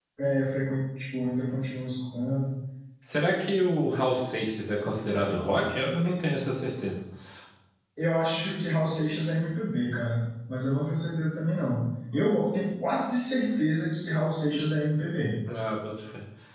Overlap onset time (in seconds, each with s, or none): none